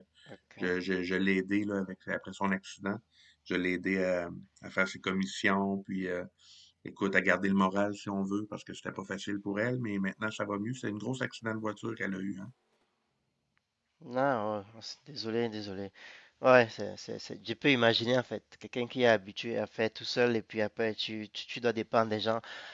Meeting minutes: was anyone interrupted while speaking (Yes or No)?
No